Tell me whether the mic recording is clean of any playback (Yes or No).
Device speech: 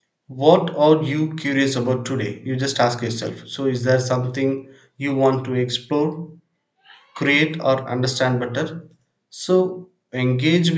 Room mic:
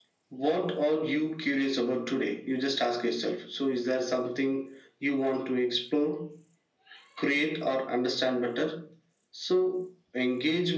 No